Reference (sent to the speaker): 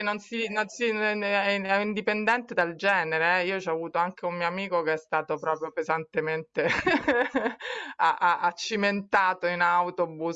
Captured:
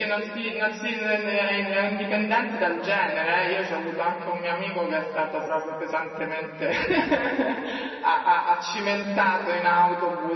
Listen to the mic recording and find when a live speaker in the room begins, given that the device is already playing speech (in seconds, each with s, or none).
none